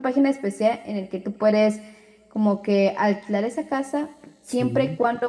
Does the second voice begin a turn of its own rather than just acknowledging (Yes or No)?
No